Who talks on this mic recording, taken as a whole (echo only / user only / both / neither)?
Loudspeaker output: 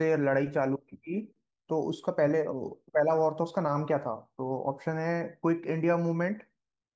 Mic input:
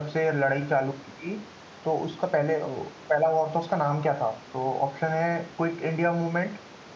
echo only